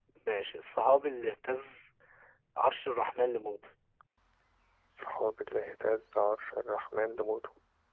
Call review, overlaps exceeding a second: none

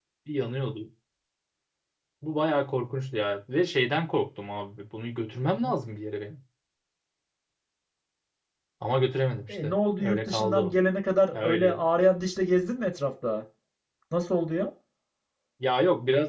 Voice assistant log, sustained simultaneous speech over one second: present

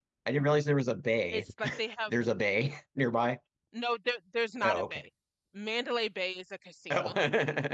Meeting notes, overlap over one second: none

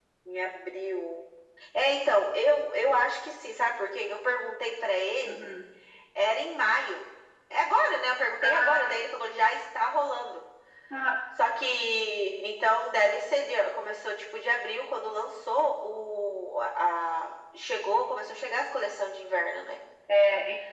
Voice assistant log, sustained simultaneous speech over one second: none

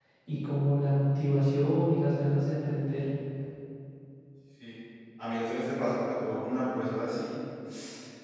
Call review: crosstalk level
none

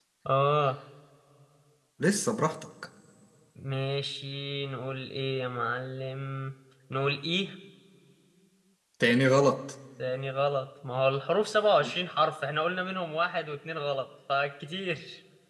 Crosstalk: none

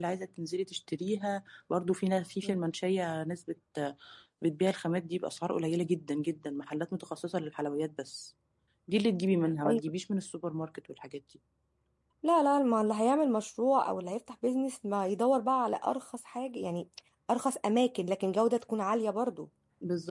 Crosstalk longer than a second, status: none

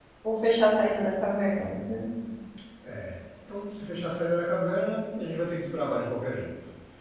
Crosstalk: none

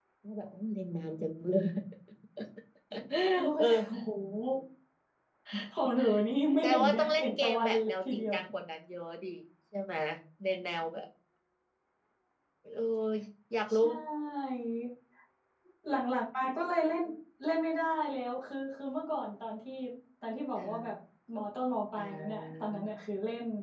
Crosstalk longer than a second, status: present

